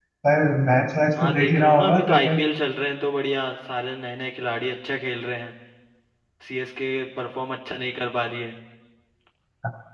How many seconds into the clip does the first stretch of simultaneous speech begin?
1.2 s

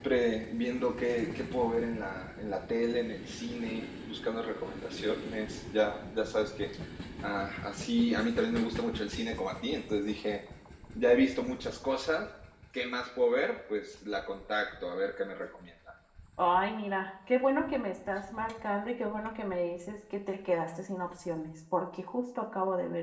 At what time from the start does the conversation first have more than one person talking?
none

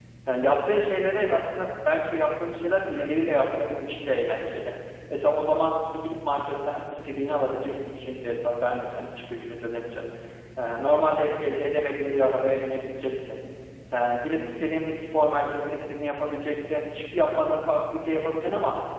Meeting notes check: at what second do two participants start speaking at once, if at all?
none

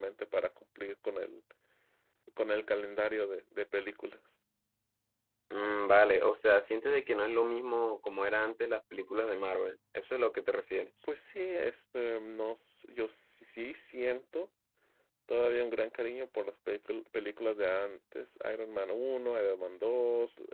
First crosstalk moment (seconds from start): none

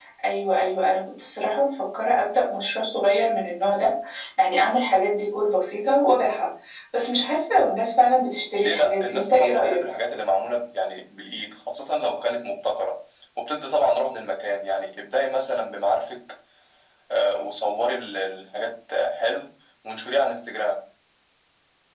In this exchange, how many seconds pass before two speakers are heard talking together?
8.6 s

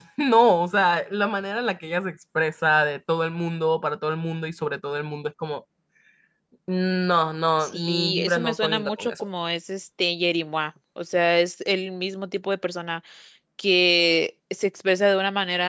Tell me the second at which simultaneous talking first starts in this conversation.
7.6 s

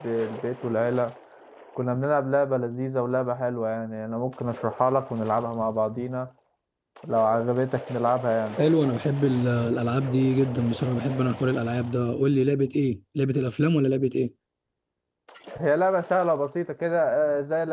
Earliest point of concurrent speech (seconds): none

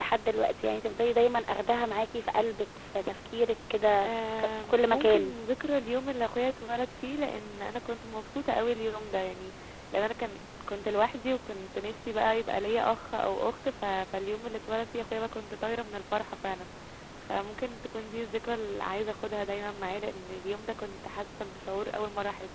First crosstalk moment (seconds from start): 4.0 s

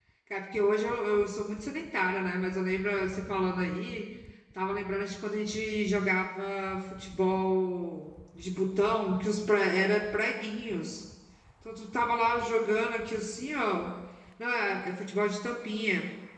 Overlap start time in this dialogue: none

